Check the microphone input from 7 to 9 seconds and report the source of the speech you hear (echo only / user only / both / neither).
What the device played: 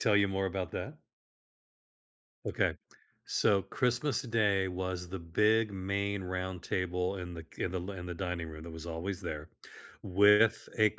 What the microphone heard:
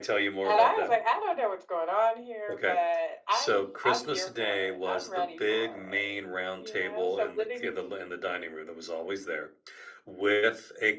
both